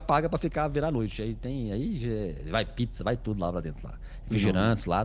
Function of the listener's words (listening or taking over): listening